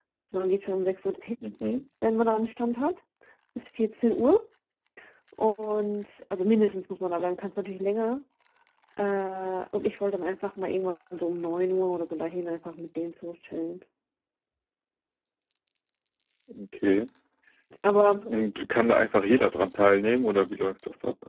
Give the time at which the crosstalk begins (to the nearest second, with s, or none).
none